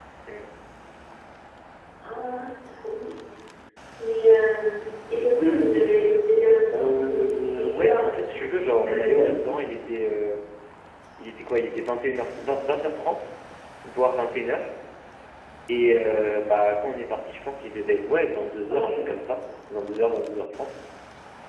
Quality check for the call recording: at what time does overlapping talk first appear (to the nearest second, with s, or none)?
7 s